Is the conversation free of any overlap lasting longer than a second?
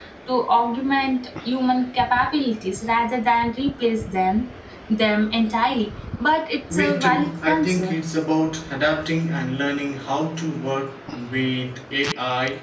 No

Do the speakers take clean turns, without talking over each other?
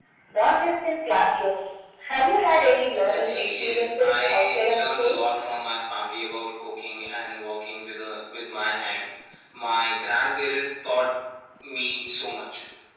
No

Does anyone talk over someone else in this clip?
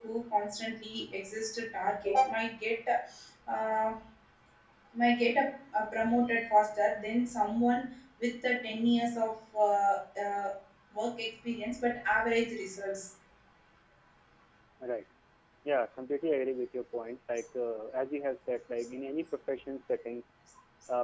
No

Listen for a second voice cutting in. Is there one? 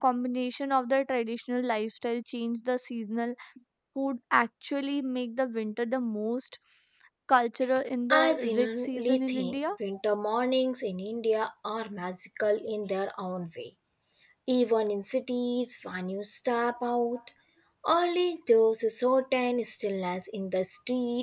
Yes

